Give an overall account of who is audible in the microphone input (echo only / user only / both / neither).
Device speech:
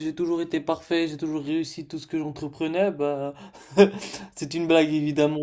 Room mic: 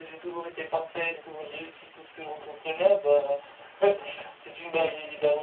echo only